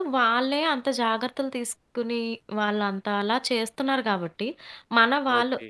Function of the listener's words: listening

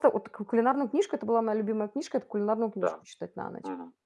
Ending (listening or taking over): taking over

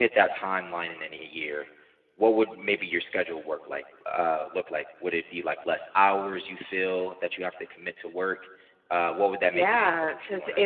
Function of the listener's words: taking over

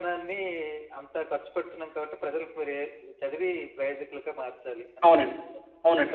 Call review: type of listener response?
taking over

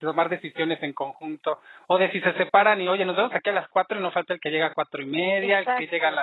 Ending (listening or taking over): taking over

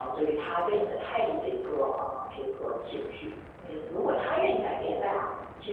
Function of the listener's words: listening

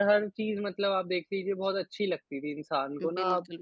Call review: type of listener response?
listening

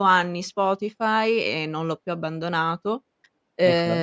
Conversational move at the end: listening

